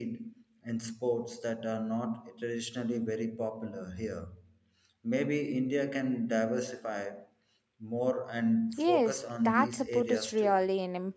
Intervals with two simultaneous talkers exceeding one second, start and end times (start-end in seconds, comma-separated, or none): 8.8-10.6